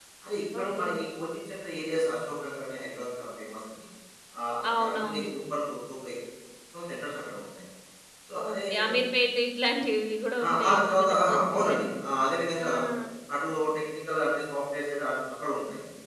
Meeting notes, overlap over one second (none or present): present